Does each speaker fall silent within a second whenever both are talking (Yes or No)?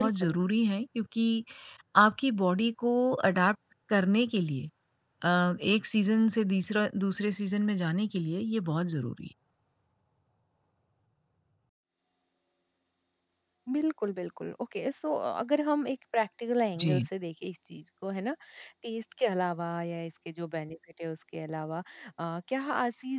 Yes